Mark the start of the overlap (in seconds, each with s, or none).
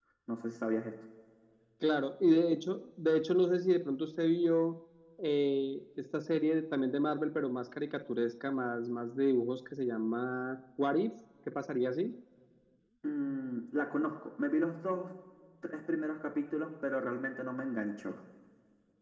none